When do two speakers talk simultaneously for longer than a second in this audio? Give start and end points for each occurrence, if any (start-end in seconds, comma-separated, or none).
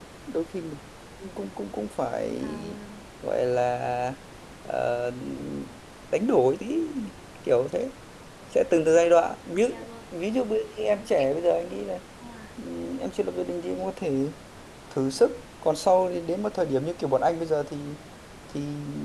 none